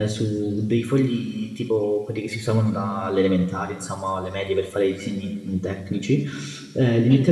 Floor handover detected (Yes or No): No